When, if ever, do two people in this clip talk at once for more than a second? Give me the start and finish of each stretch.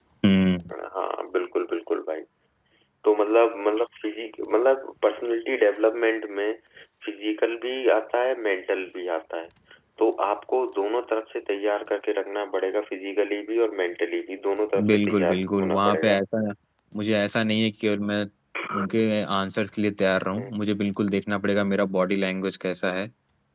14.9-16.2

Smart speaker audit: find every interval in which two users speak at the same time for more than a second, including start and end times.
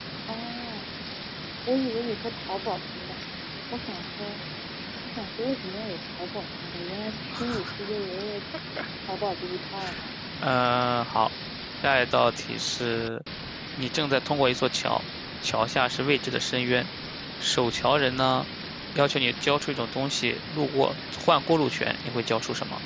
none

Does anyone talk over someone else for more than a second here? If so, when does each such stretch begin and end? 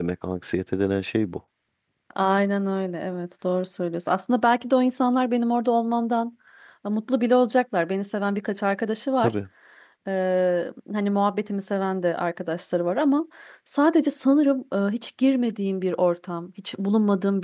none

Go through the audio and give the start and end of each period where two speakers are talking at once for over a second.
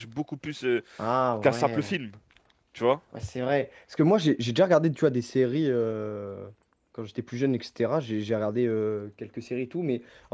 none

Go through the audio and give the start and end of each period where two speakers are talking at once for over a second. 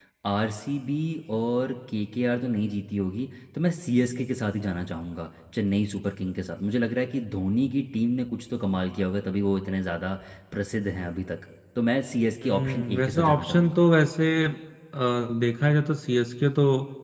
12.4-13.8

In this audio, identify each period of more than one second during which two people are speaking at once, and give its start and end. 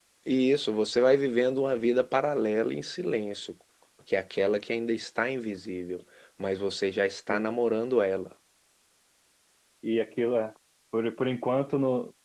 none

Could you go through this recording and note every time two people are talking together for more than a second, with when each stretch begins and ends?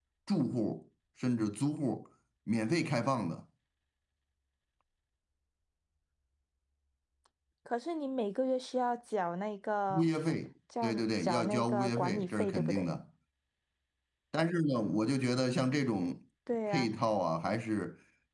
10.8-12.9

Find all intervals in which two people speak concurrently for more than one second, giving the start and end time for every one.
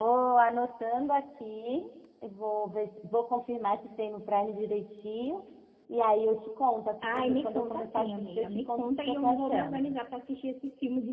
7.0-9.9

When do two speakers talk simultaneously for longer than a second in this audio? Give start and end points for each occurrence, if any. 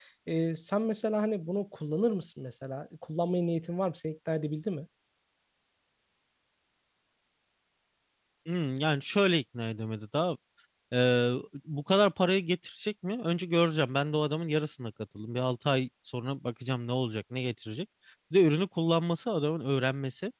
none

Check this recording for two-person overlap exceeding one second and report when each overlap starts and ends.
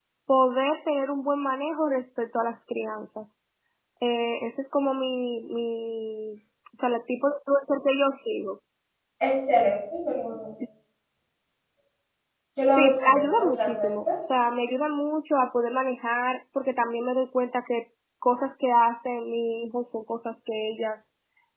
12.7-13.9

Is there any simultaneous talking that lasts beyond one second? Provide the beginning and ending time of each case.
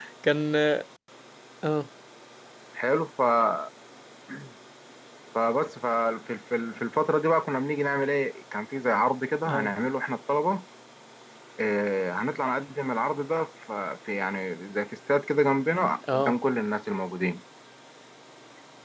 none

